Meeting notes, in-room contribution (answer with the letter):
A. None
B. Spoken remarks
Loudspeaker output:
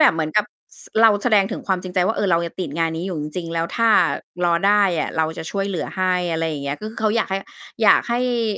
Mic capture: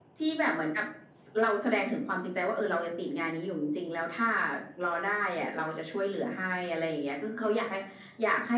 A